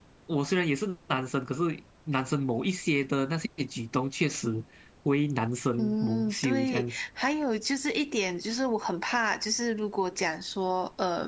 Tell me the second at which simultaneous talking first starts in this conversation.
5.8 s

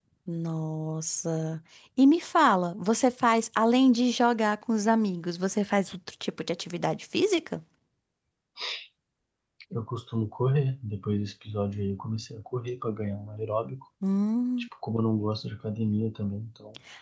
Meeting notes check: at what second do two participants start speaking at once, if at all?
none

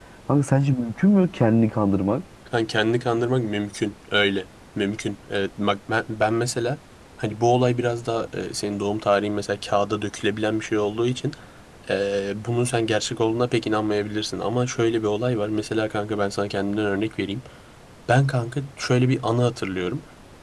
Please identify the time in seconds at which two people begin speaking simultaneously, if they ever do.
none

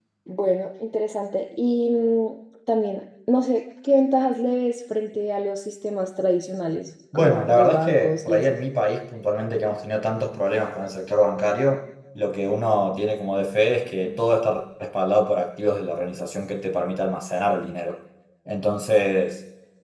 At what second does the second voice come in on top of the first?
7.1 s

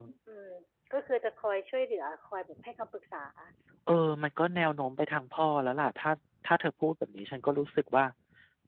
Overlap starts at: none

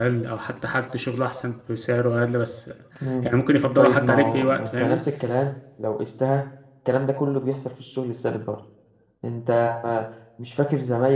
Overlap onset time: 3.8 s

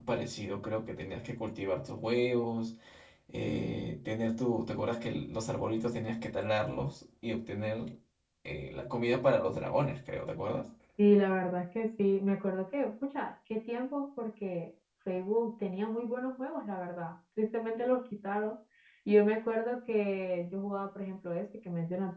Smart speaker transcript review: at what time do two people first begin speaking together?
none

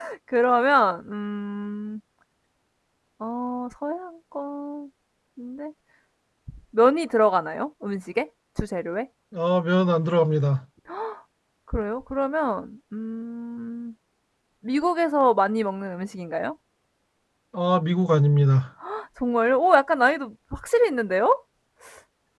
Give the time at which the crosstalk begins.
none

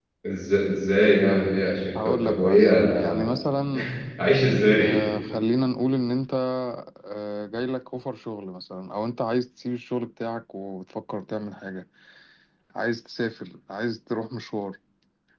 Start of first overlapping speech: 2.0 s

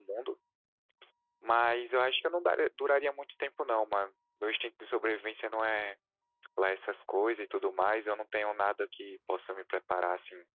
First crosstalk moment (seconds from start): none

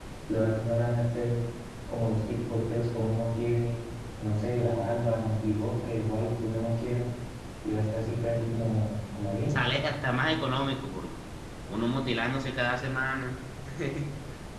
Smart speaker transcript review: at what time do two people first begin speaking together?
none

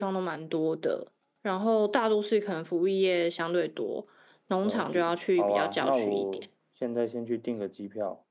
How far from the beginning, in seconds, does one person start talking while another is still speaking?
4.6 s

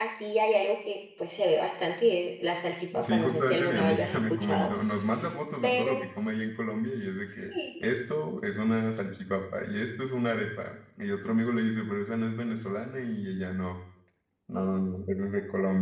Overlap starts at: 3.0 s

